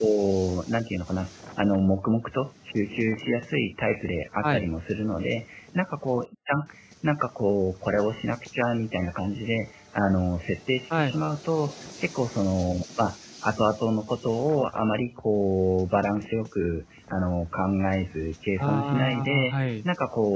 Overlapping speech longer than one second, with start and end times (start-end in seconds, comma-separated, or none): 18.6-19.8